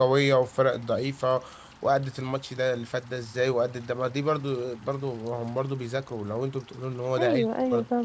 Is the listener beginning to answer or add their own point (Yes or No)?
Yes